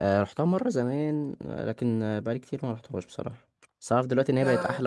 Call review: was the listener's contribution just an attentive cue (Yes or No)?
Yes